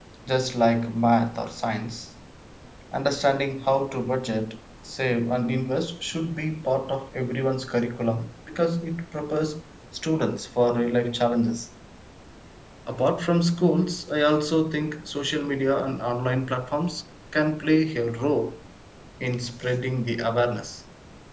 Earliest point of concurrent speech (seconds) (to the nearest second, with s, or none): none